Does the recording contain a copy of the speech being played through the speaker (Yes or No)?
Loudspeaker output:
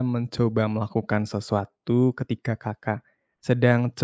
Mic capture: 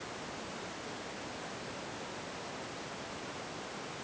No